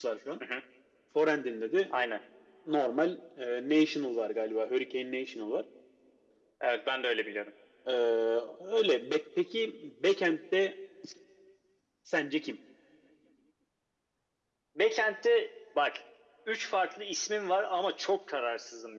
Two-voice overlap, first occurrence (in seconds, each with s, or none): none